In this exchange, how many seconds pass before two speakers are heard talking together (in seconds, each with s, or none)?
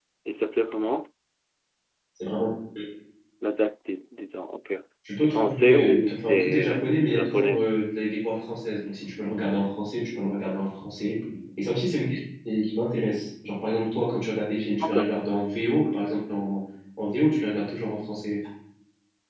5.2 s